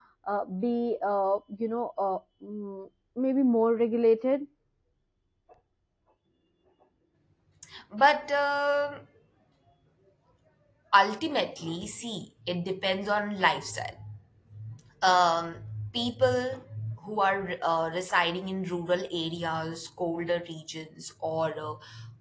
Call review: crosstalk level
none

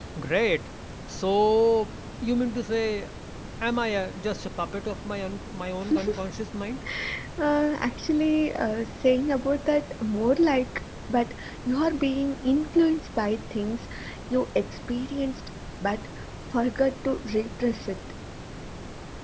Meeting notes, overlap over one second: none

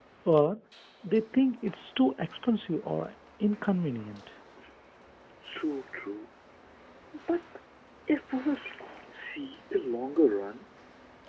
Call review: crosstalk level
none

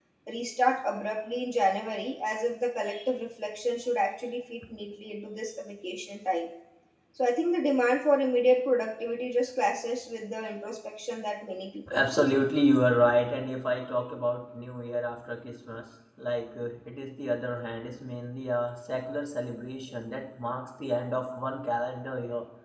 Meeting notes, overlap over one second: none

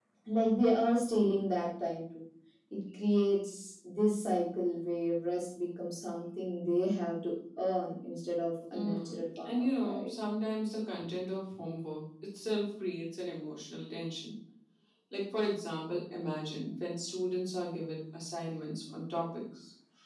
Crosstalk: present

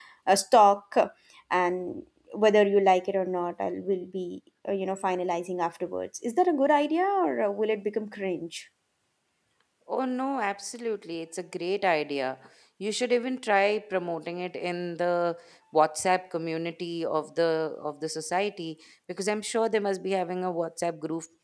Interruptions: none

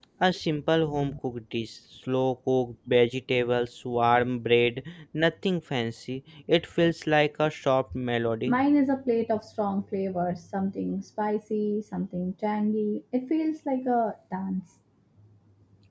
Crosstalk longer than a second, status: none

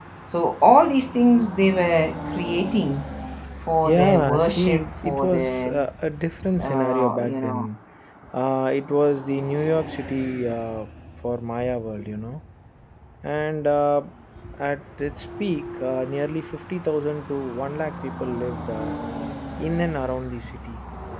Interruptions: present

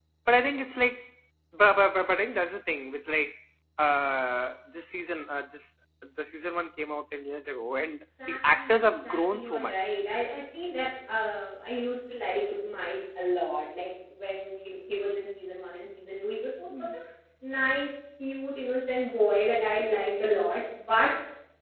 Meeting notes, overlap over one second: present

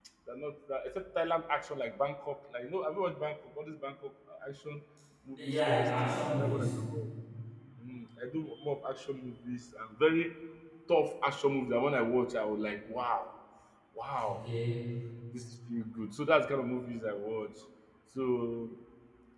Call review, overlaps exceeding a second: present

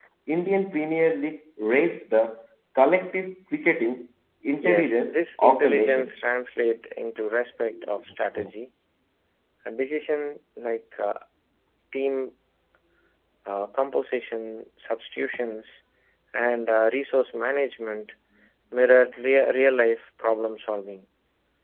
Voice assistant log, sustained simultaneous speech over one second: present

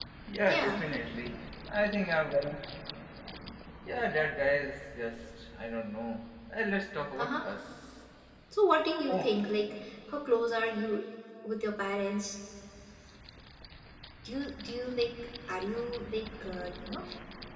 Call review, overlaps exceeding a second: none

